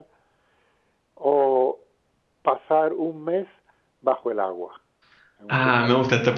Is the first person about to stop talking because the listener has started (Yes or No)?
Yes